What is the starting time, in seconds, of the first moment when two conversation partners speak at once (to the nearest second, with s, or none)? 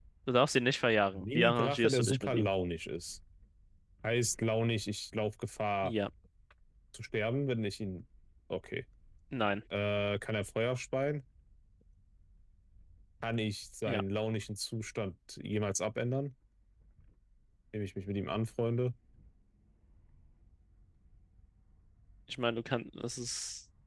1 s